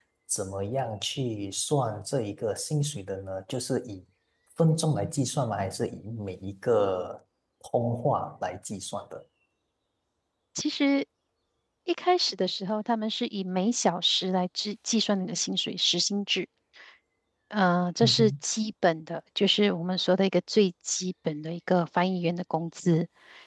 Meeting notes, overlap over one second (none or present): none